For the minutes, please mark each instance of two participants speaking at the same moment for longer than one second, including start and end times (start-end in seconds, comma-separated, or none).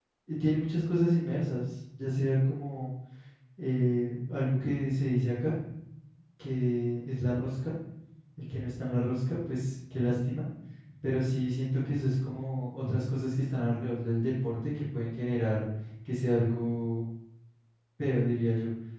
none